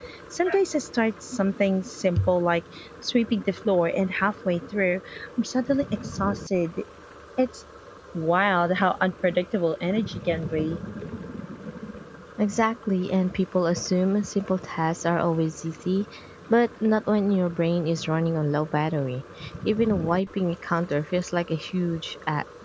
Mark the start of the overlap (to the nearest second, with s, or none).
none